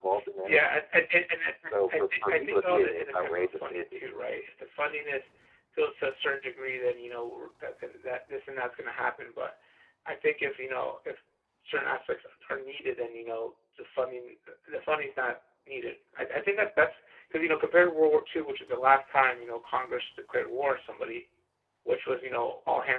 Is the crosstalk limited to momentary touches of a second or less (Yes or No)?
No